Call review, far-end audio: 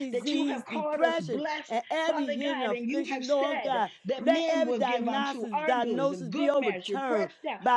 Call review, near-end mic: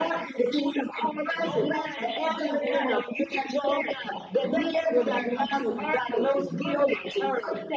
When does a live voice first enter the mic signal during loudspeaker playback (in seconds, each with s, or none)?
1.4 s